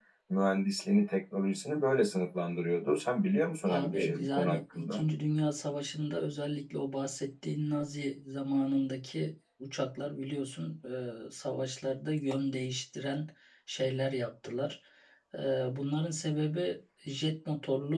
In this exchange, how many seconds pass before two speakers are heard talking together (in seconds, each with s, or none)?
3.6 s